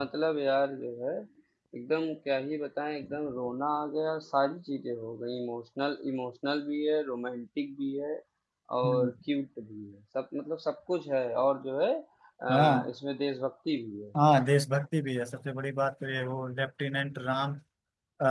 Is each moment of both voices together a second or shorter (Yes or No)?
Yes